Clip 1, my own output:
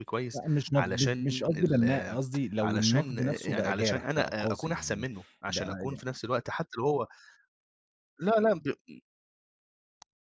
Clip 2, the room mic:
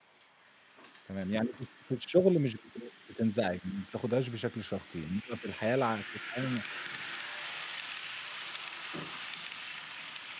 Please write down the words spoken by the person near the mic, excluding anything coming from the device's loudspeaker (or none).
تمام، يعني في الش في الشغل مش بت مش بتنزعج، ما بتاخدهاش بشكل شخصي، إنما في الحياة الع في الحياة ال